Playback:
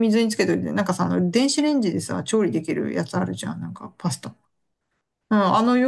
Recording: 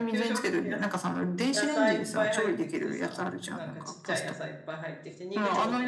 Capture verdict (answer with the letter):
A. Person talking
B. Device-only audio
A